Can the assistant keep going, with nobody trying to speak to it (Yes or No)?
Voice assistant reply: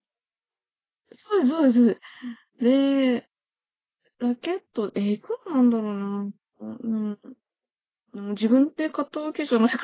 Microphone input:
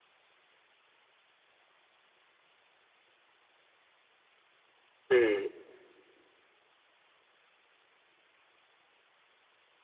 No